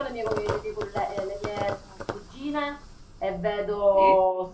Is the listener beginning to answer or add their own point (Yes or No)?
No